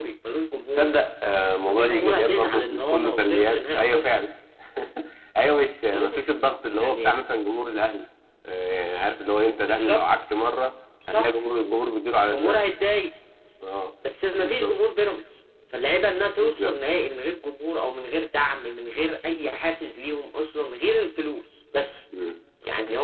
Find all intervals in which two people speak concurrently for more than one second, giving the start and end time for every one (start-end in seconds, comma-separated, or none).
1.6-4.2